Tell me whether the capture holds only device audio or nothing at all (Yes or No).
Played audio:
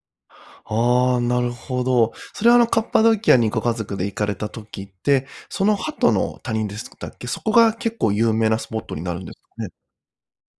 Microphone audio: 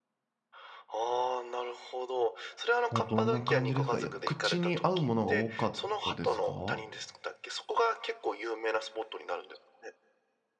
No